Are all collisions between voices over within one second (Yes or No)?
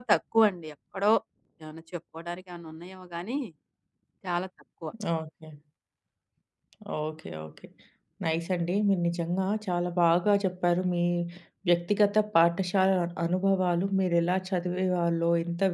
Yes